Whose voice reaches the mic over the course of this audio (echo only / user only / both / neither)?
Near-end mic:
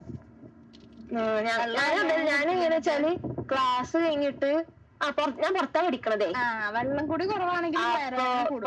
echo only